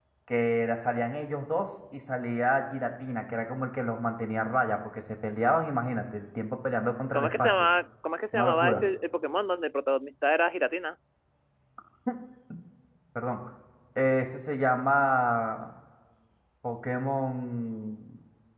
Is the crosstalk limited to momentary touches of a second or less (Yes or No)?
Yes